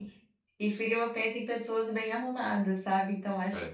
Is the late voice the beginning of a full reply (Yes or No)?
No